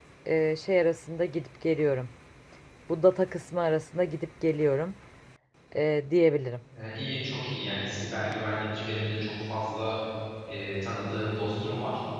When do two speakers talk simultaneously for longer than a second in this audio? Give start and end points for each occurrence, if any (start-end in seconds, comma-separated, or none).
none